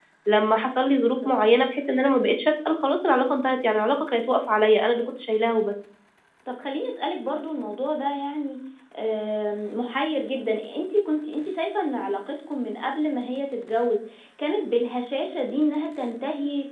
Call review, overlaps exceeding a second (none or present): none